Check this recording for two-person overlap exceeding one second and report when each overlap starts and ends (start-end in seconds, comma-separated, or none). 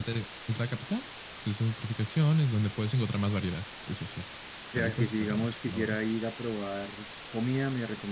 4.8-6.0